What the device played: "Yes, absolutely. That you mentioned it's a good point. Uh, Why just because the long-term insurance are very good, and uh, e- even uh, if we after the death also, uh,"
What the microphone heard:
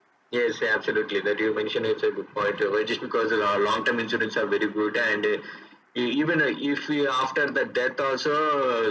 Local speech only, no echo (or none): none